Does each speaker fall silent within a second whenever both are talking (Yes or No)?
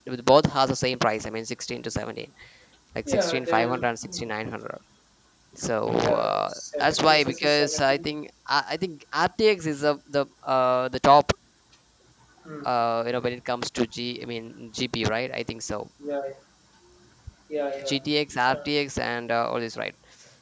No